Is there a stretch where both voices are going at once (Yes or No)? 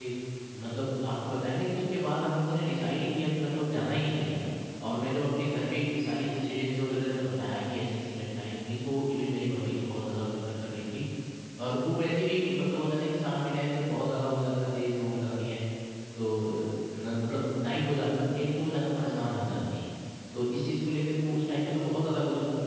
No